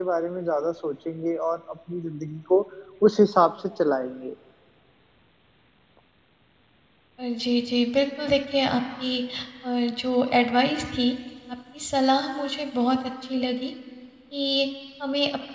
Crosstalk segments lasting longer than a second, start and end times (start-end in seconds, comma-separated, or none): none